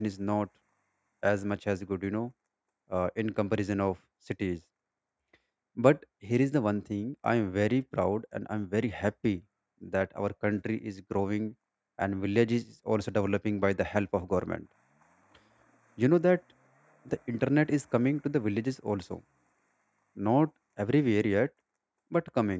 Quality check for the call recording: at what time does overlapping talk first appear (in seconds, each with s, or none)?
none